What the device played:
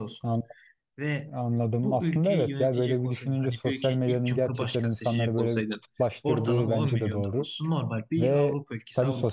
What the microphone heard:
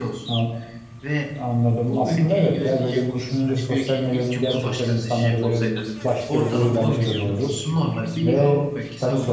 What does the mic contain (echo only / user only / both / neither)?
echo only